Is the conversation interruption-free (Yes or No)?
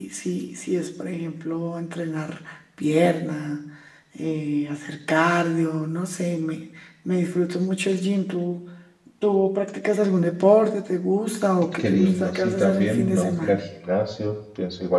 No